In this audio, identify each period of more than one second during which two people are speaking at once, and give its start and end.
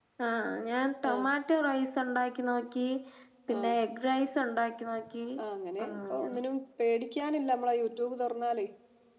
none

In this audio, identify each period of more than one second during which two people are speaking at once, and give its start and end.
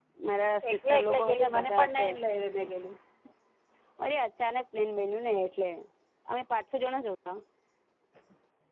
0.7-2.1

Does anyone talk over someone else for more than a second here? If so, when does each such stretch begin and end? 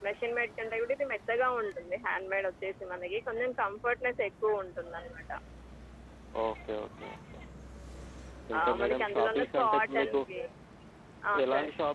8.6-10.2

